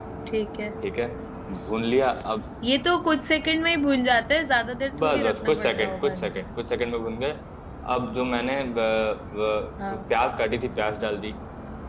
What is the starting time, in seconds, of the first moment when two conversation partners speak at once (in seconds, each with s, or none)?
5.0 s